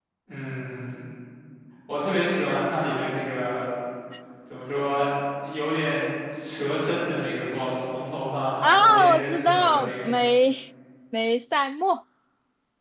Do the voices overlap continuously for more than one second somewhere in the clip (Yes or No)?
Yes